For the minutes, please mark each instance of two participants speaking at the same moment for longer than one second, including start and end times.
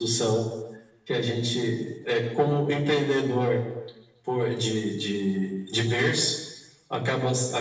none

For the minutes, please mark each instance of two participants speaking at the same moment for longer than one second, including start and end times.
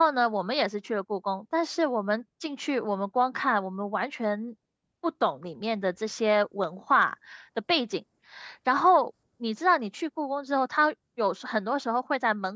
none

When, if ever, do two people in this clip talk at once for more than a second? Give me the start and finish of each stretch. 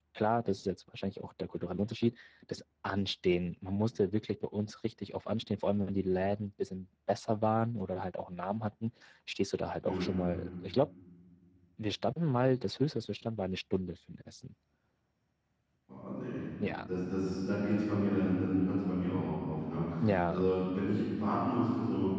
none

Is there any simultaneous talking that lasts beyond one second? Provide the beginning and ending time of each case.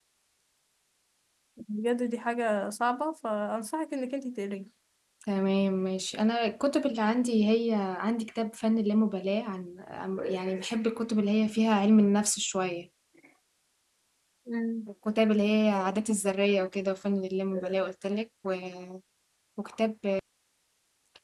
none

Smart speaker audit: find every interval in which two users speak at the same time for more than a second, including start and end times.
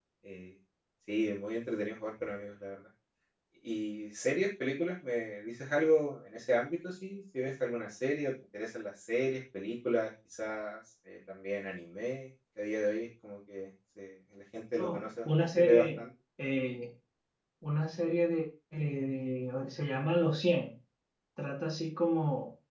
14.8-16.0

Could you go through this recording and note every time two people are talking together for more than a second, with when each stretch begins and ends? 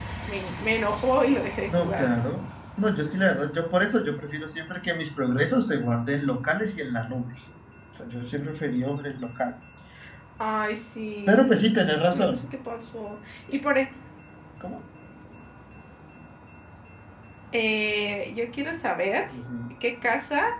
none

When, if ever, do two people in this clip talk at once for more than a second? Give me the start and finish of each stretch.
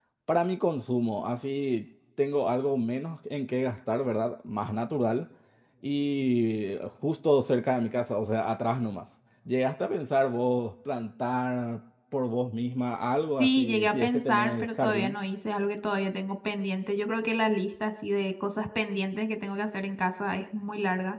13.4-15.2

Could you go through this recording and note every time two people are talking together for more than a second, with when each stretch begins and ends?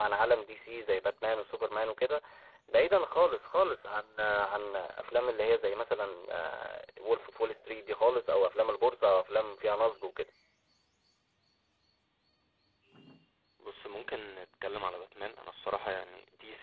none

